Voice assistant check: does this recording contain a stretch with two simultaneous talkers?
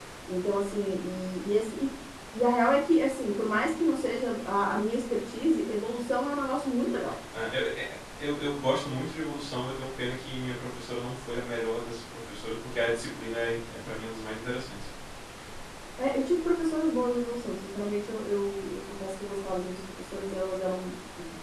No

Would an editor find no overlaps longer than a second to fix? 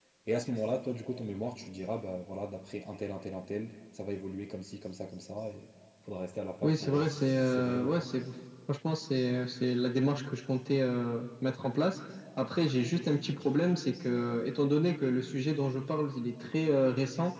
No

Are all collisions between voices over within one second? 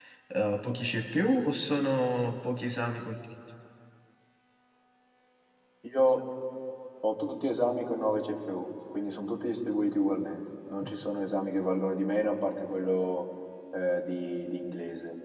Yes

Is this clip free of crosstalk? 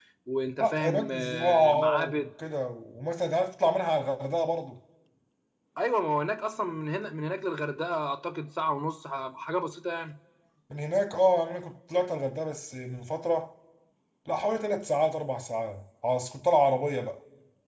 No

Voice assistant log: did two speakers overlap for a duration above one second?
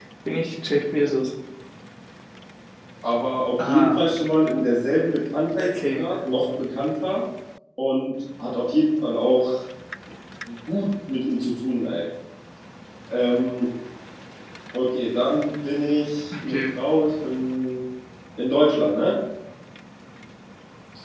No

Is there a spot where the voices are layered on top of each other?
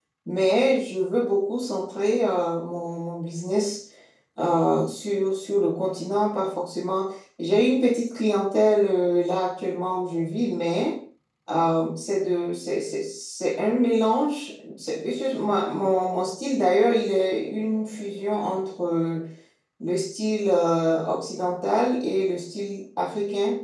No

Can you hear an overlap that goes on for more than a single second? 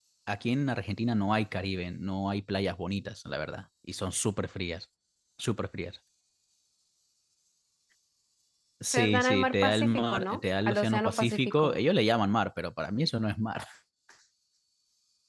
Yes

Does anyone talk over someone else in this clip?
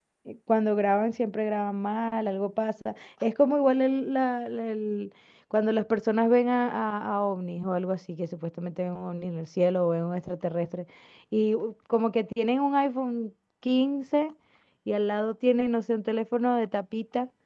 No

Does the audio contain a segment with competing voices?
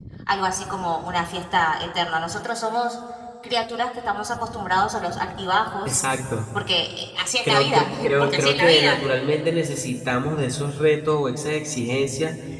Yes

